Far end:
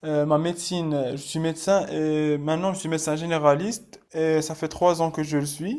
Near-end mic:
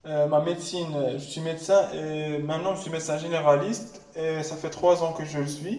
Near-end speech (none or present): none